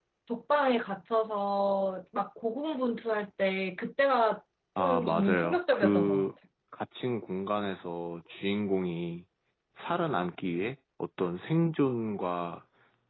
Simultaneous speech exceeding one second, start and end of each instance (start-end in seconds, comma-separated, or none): 4.8-6.2